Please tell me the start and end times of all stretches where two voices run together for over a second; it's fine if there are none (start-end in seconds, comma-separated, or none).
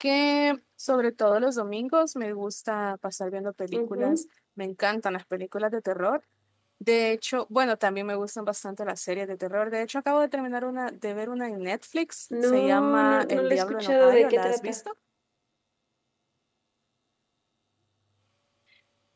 12.4-14.8